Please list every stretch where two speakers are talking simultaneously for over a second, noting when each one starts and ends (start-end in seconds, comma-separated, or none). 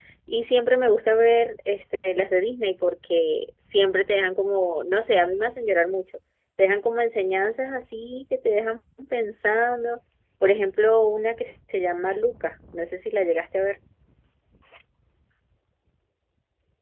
none